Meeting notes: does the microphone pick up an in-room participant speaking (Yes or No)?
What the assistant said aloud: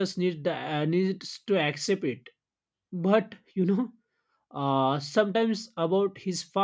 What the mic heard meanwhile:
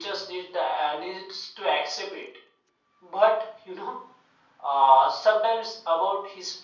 No